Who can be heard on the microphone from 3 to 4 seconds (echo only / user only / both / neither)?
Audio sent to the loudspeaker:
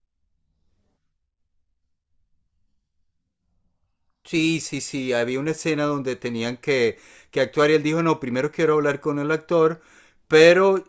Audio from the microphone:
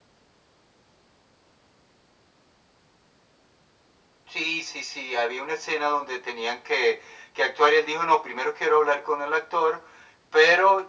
neither